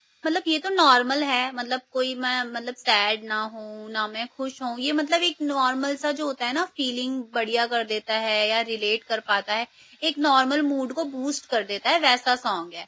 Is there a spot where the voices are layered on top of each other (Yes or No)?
No